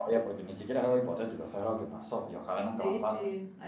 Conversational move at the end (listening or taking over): taking over